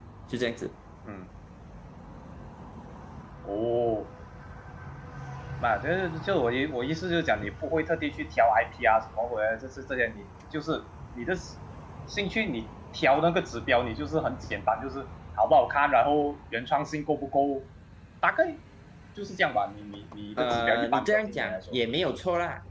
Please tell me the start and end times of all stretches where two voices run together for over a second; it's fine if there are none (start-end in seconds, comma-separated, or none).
20.4-21.6